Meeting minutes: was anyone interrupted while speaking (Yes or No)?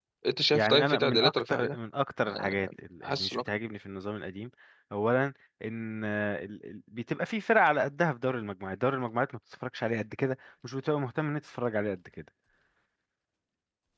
Yes